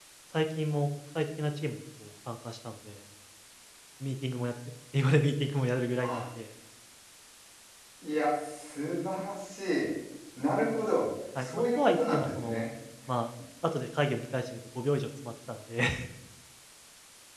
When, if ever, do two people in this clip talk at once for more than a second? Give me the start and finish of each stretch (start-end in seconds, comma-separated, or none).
11.4-12.7